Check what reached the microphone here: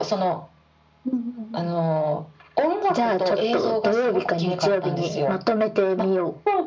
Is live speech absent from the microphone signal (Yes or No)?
Yes